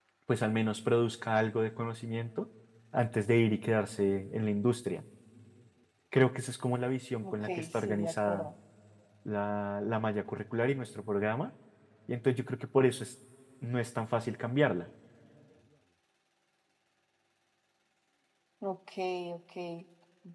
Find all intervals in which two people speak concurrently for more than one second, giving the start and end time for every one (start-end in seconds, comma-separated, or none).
7.2-8.5